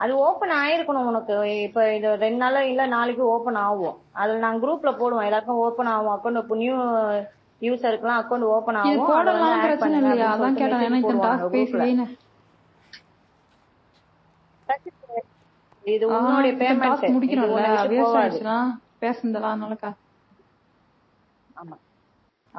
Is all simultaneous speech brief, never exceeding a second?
No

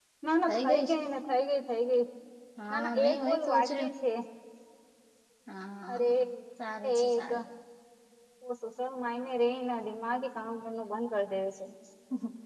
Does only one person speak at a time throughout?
No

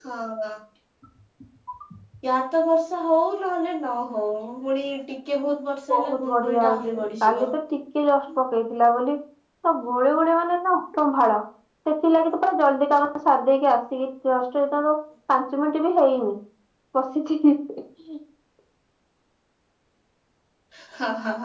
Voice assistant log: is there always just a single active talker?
No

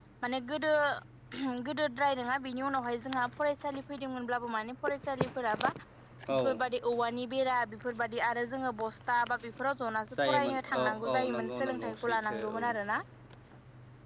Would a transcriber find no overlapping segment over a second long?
No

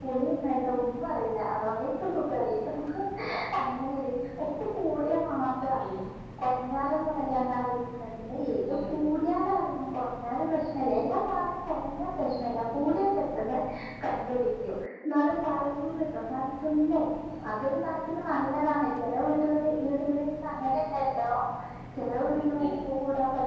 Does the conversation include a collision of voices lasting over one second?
No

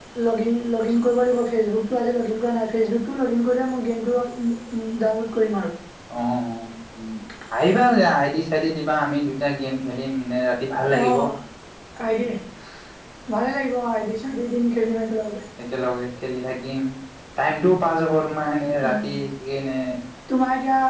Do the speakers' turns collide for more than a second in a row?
No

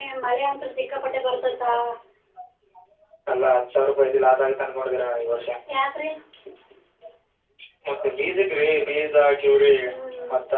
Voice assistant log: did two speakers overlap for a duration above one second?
No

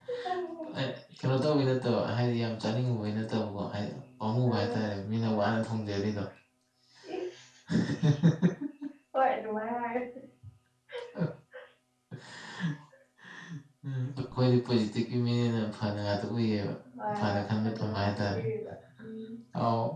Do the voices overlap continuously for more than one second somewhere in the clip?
Yes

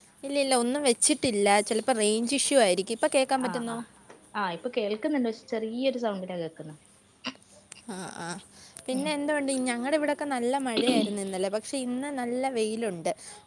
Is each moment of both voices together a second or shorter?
Yes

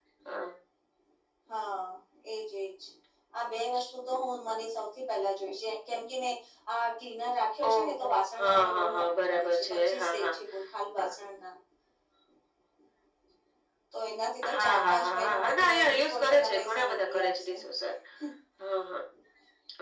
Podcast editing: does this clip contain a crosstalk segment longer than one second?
Yes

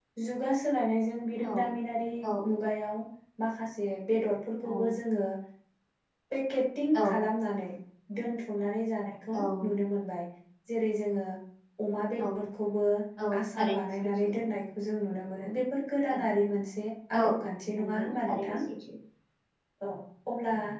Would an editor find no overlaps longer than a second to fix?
No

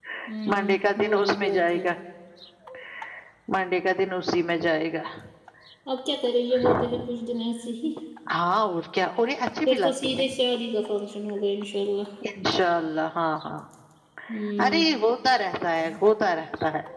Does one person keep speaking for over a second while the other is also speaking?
Yes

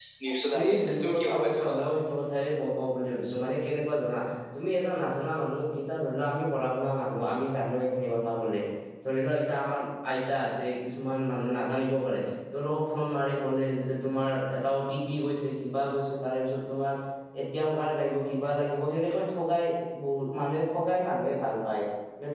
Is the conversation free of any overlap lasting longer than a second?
No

